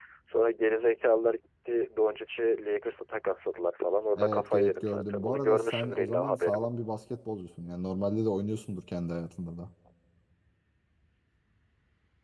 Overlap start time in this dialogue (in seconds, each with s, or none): 4.1 s